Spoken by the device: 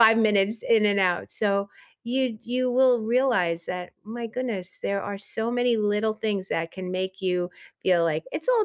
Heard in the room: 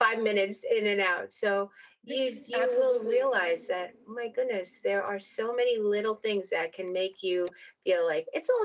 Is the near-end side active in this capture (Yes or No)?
Yes